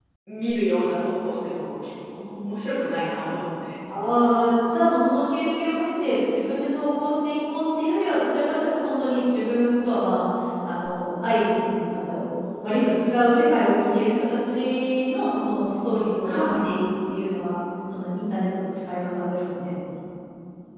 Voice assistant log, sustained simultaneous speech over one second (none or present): none